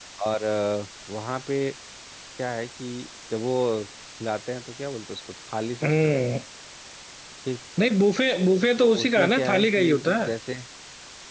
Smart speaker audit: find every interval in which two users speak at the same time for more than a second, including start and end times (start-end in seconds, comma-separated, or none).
8.8-10.3